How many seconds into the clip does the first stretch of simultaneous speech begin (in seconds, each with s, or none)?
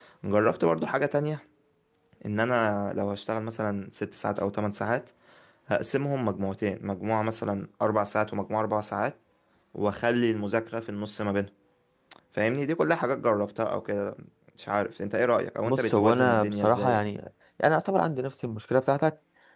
15.7 s